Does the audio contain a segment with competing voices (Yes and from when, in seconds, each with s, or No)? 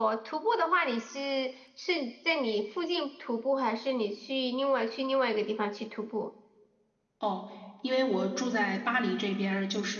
No